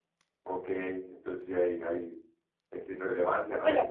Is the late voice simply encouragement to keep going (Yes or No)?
No